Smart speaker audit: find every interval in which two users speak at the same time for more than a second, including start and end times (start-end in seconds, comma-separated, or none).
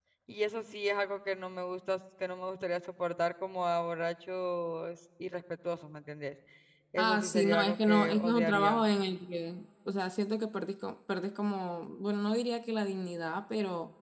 7.0-8.8